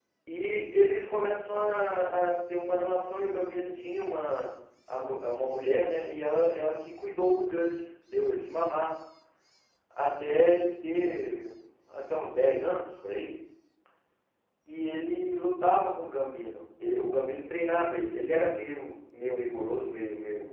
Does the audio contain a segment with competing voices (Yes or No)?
No